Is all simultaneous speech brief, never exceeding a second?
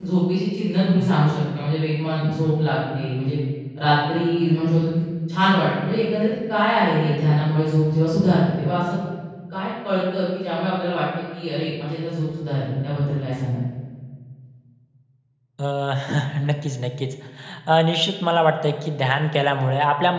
Yes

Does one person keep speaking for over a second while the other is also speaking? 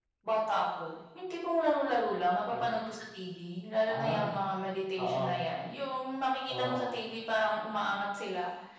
No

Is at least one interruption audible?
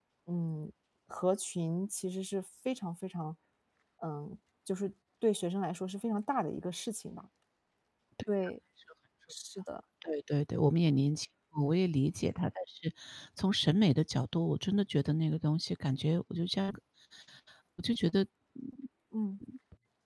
No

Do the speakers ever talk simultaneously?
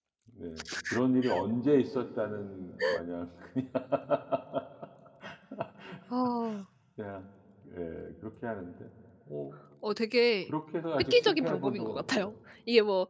Yes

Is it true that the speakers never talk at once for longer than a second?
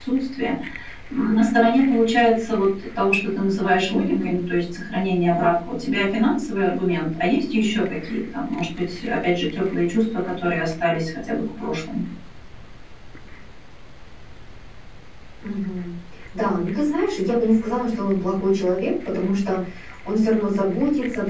Yes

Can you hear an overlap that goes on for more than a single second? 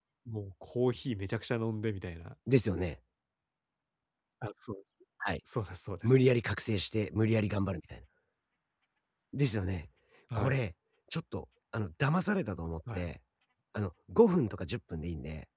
No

